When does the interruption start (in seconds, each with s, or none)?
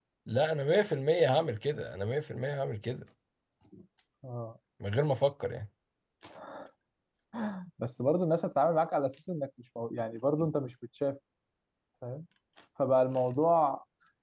none